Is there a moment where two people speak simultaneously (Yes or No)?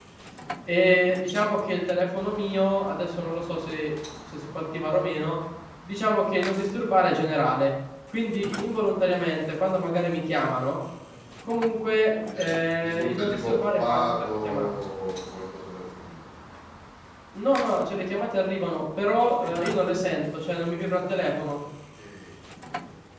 Yes